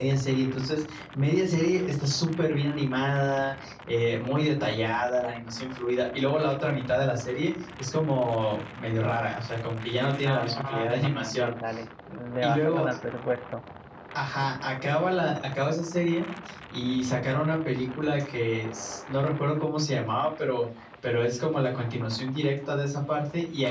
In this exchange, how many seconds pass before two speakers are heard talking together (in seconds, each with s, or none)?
10.2 s